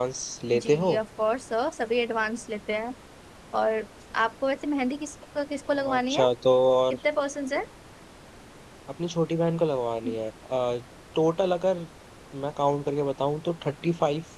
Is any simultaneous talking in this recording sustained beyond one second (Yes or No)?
No